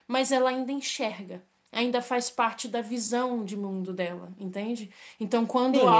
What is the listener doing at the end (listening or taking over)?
taking over